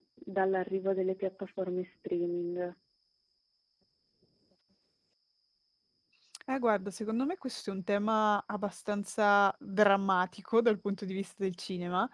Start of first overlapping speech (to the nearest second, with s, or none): none